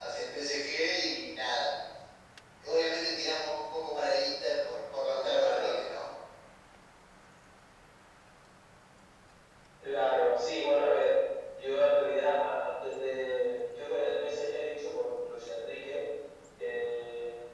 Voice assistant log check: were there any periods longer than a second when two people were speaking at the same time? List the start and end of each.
none

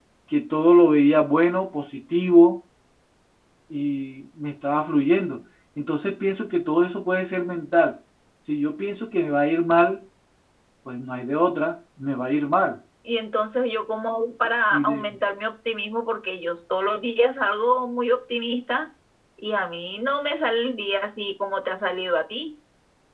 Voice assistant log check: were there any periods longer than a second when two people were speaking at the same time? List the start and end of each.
none

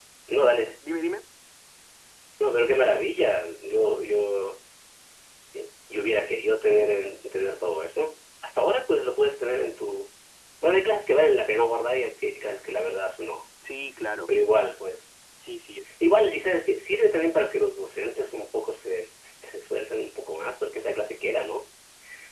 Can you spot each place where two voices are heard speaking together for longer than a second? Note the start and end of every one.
none

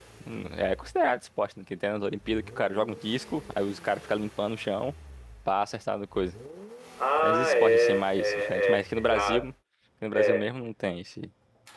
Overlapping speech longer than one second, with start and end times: 7.2-9.4

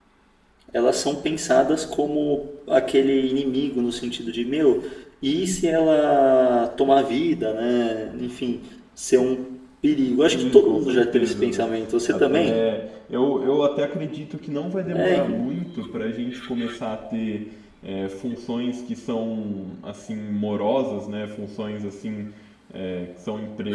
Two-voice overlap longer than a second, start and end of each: 10.2-11.6

